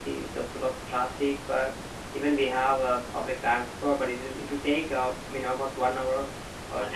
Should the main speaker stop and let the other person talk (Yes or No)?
No